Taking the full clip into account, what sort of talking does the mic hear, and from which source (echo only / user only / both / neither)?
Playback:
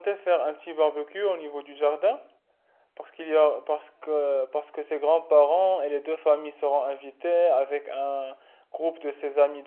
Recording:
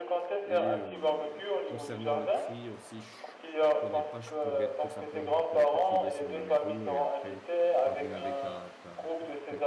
both